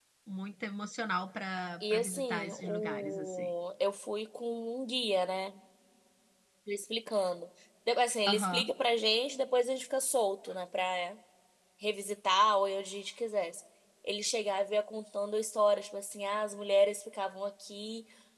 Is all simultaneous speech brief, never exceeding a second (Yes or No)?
No